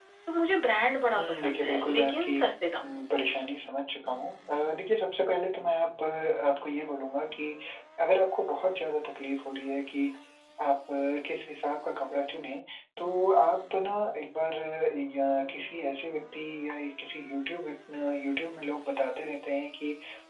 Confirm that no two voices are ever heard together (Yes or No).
No